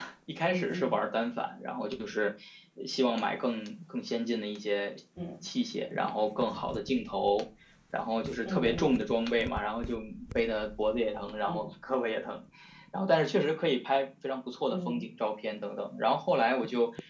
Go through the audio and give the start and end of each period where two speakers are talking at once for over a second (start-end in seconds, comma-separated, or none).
none